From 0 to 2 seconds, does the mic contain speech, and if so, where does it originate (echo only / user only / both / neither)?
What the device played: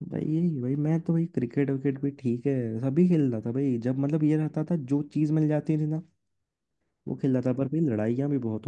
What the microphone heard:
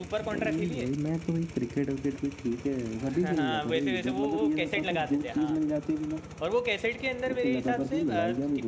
both